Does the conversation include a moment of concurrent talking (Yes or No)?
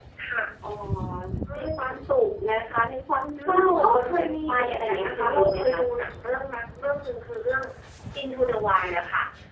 Yes